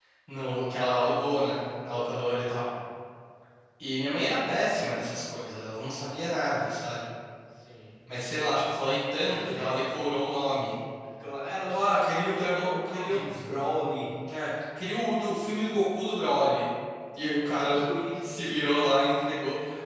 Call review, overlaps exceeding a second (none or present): present